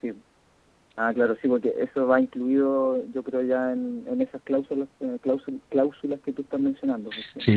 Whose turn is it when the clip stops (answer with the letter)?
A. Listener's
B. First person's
A